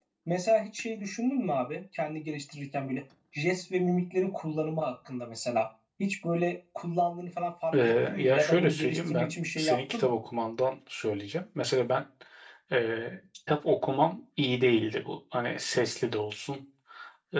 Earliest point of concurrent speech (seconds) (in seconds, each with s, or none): 7.7 s